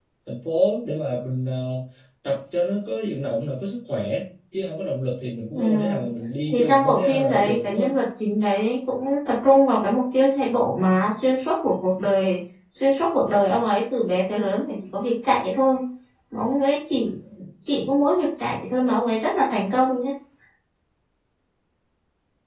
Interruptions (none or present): present